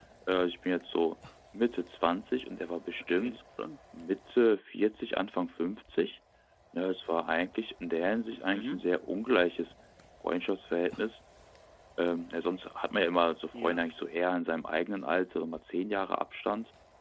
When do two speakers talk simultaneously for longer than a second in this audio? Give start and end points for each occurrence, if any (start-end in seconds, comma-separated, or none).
none